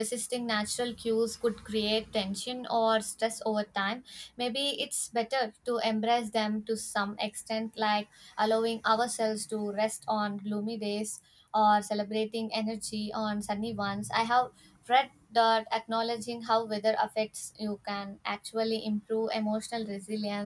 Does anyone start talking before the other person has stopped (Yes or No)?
No